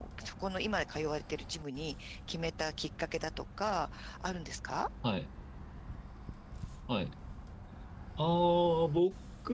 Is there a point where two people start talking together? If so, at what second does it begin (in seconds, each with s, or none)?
none